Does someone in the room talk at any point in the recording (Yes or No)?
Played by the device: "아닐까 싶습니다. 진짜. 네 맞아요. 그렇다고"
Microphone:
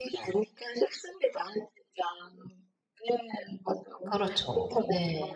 Yes